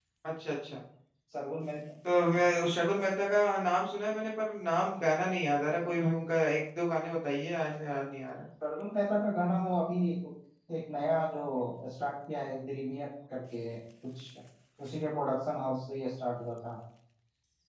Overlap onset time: none

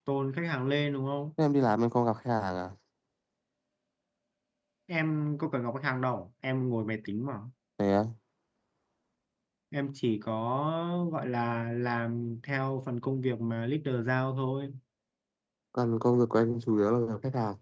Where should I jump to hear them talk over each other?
none

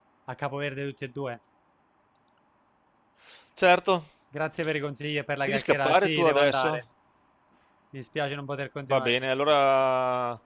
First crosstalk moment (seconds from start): 5.5 s

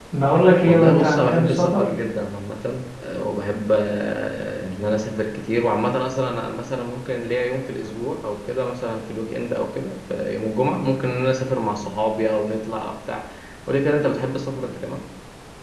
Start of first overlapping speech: 0.7 s

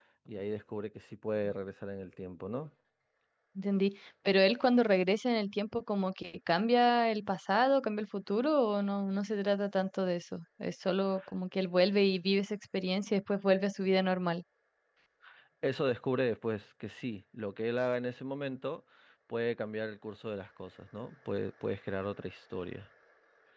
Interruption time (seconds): none

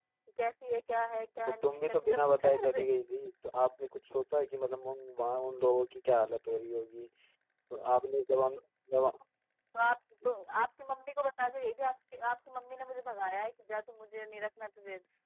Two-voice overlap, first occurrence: 1.5 s

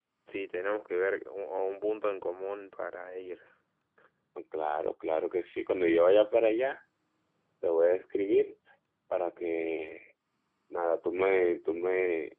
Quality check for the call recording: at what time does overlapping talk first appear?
none

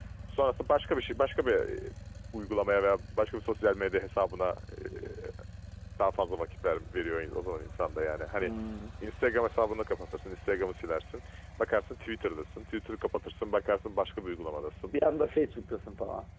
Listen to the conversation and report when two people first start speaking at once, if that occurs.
none

